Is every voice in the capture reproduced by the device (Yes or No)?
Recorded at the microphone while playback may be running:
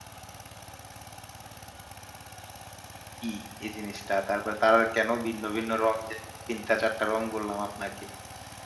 No